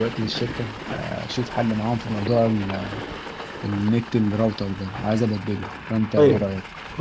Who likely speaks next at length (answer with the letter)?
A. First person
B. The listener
B